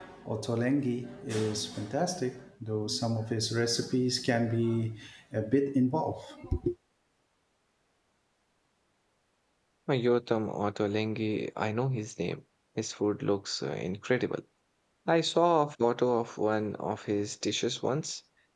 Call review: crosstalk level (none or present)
none